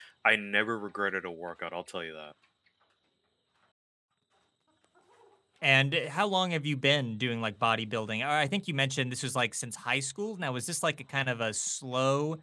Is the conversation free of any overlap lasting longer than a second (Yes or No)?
Yes